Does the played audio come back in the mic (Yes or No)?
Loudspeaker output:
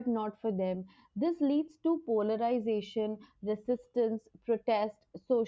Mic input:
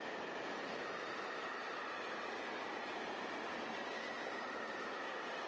No